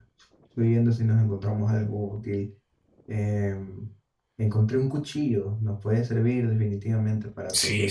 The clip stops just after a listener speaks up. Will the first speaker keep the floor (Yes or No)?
No